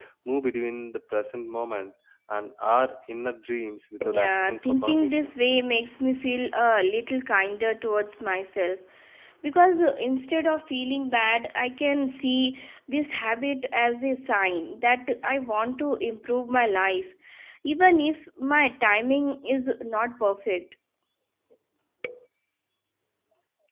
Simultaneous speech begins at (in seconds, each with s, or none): 4.0 s